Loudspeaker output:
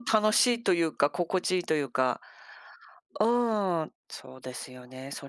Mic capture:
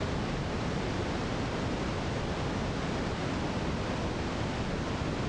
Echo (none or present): none